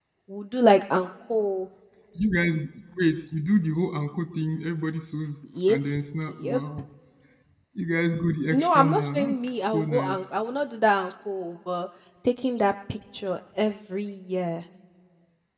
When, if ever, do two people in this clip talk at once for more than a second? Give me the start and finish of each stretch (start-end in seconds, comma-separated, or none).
8.5-10.4